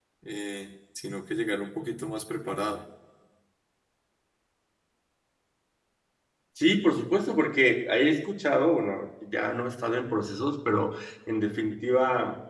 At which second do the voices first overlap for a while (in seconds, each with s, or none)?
none